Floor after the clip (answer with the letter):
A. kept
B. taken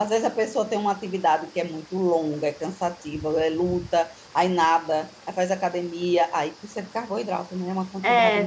B